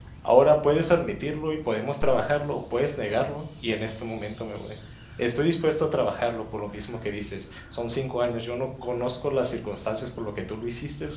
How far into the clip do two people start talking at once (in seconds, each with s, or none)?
none